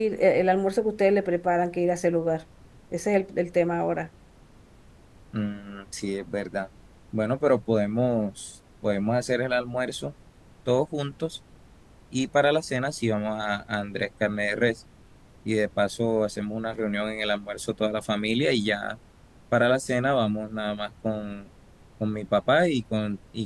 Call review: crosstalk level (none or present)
none